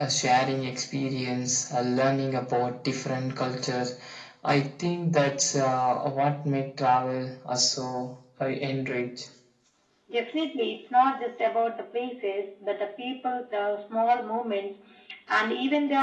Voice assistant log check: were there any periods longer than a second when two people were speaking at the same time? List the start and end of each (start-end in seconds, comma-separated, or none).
none